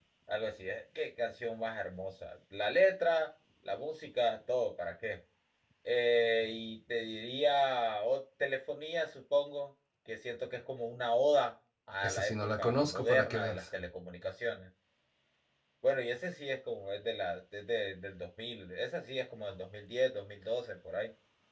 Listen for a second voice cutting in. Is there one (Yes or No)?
Yes